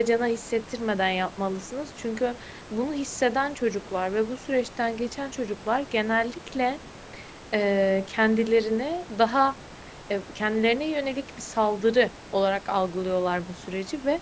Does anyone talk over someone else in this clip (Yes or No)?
No